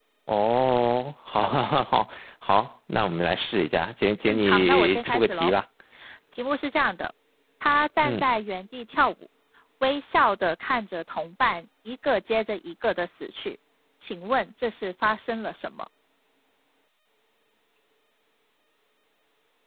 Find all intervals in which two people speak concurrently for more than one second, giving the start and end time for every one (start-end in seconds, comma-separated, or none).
4.2-5.5